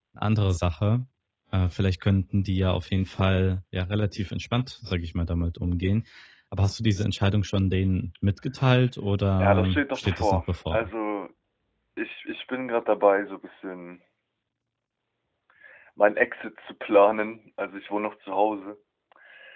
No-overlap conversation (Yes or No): No